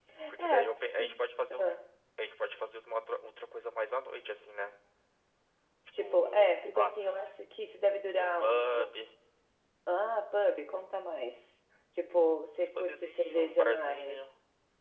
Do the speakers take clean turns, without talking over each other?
No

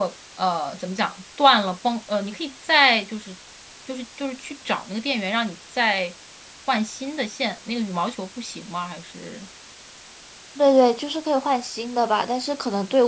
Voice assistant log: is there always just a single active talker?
Yes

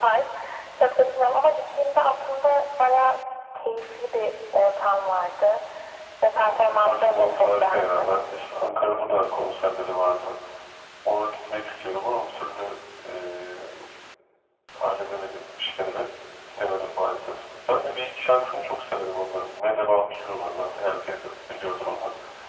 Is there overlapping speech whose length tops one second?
Yes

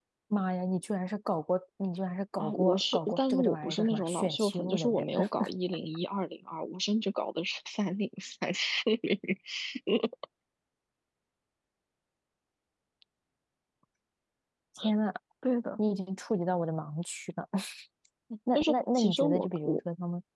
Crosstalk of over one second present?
Yes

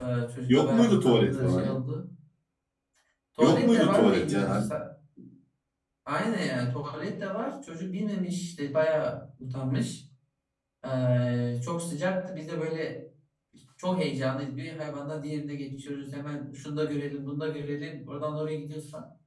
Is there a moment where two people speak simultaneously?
Yes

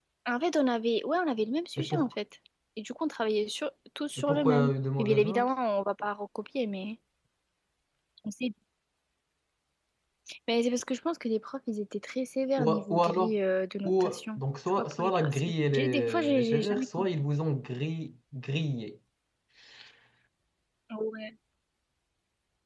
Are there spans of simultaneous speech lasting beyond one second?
Yes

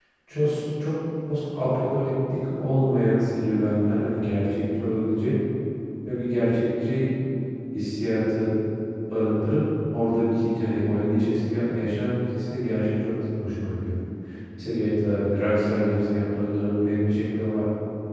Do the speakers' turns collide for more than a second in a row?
No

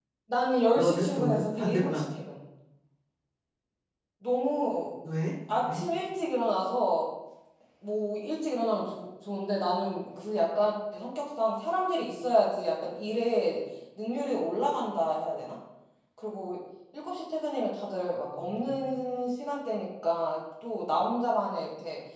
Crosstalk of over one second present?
Yes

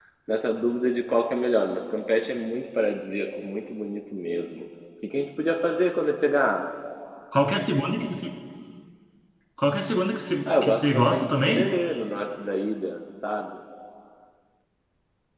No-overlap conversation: No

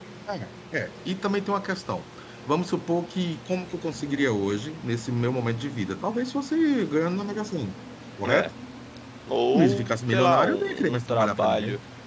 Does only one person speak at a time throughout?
No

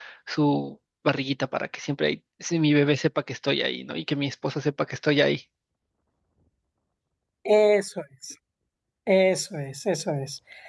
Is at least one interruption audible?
No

